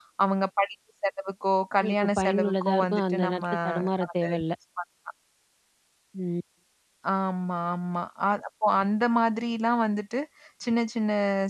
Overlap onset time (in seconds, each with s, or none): 1.8 s